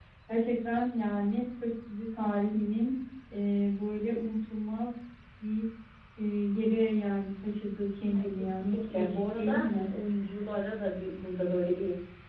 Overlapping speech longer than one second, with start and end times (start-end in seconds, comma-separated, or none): 8.1-9.9